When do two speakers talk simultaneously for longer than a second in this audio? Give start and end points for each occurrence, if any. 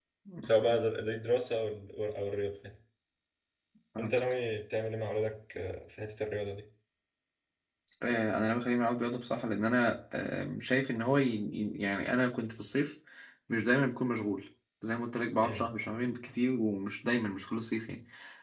none

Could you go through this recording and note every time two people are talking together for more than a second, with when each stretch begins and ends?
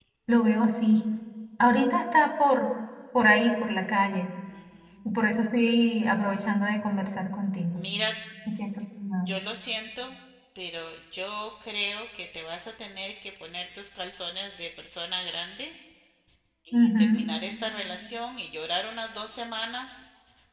none

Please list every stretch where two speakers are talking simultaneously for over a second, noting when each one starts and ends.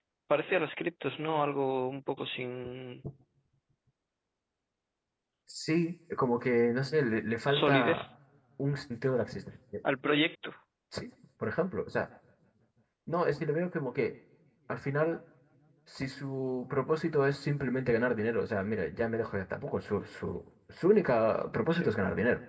none

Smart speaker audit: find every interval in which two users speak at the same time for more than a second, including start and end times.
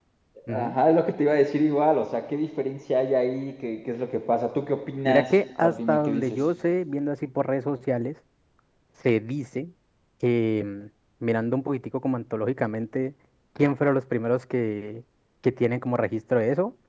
5.0-6.5

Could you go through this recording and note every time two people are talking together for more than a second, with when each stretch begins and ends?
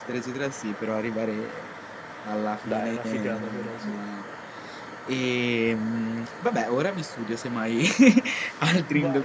2.7-4.0

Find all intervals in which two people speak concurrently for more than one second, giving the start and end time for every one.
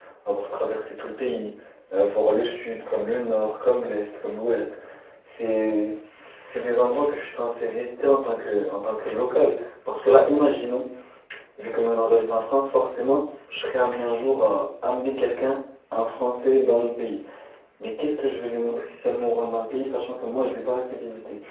none

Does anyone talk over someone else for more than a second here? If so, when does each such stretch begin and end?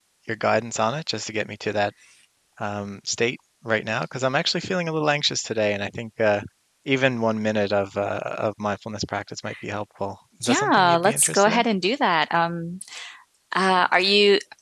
10.4-11.7

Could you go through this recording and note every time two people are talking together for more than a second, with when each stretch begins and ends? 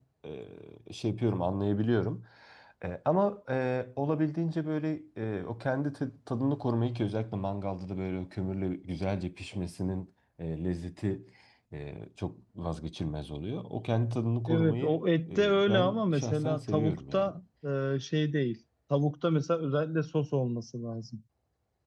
14.5-17.3

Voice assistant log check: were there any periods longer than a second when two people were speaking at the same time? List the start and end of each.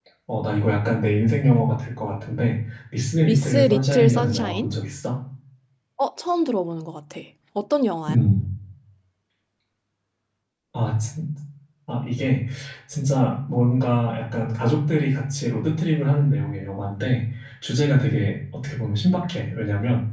3.2-4.7

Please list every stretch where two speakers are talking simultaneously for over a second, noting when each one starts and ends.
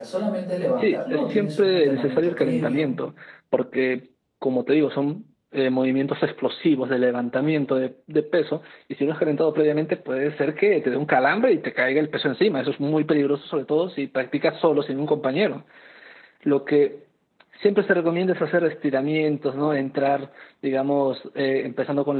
0.7-3.0

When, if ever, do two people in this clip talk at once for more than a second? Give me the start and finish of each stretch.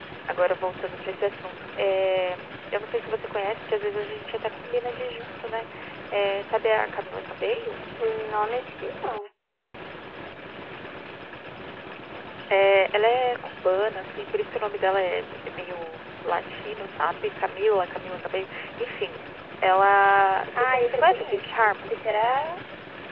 20.6-22.0

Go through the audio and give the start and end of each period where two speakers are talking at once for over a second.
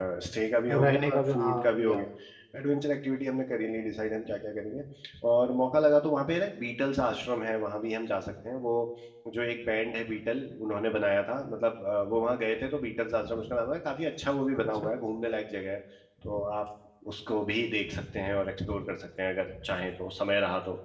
0.7-2.0

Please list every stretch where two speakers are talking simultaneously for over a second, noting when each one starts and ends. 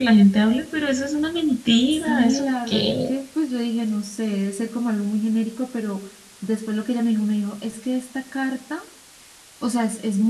1.9-3.1

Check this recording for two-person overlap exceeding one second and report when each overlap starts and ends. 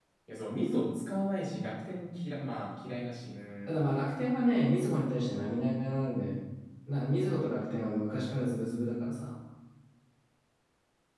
none

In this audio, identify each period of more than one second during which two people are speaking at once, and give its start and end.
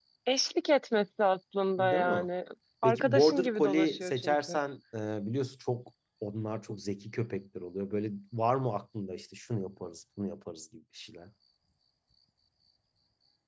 2.8-4.6

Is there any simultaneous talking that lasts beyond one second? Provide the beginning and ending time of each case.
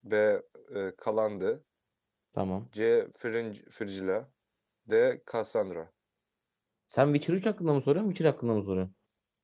none

